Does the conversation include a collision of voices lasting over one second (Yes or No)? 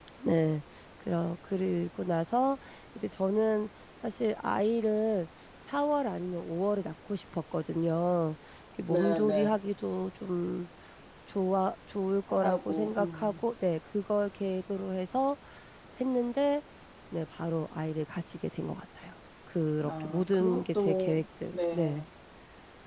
Yes